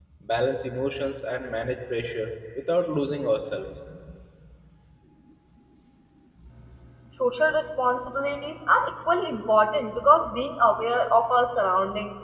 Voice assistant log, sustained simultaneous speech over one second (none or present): none